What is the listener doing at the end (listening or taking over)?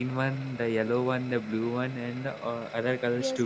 taking over